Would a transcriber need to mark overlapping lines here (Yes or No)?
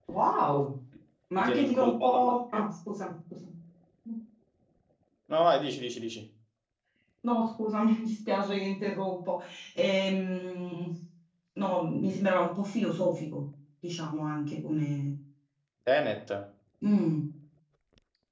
Yes